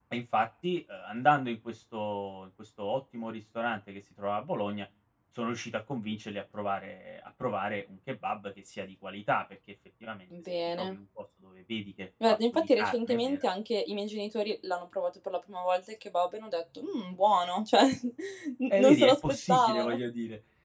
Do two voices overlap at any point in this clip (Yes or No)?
Yes